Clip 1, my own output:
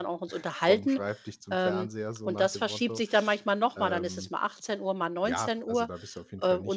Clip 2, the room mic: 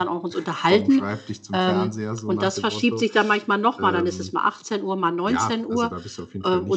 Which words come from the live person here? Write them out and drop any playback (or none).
none